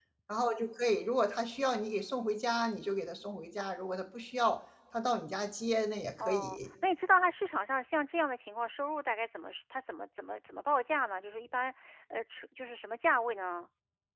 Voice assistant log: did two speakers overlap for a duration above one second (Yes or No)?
No